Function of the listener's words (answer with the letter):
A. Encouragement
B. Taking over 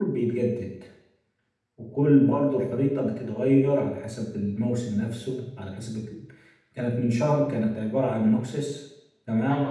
B